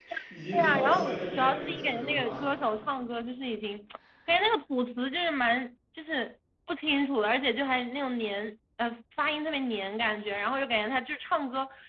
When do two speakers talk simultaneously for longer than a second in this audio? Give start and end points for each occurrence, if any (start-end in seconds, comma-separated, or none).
0.5-2.4